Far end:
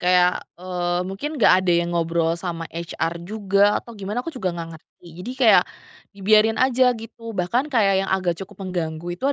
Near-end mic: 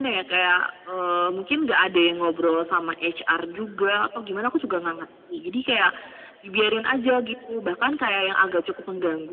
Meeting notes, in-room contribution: none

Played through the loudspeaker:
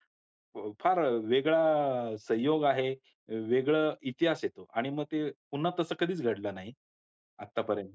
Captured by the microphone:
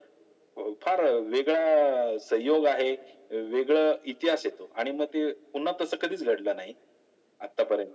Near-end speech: none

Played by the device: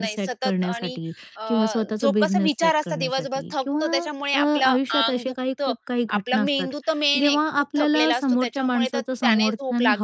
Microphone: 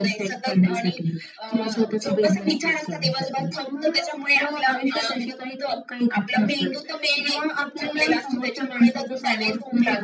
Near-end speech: none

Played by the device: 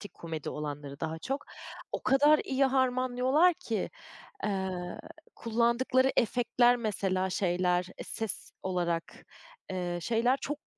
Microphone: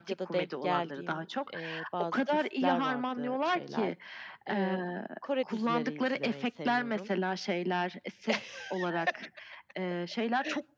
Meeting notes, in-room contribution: present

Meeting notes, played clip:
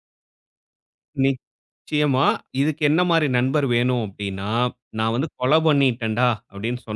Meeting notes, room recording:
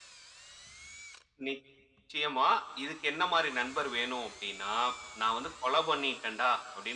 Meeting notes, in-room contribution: none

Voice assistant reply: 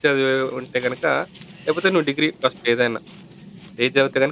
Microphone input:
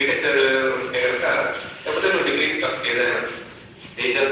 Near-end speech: none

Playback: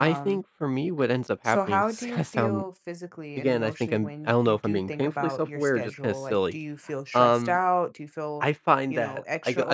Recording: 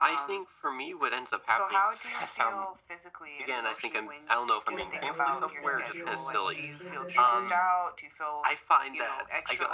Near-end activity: present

